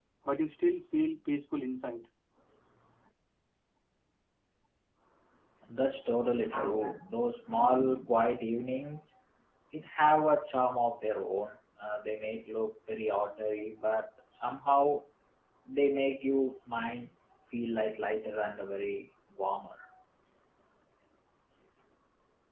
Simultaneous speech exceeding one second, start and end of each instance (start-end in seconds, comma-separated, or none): none